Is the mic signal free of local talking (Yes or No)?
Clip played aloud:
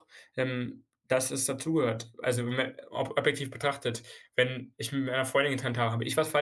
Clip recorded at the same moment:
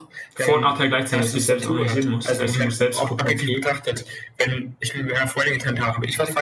No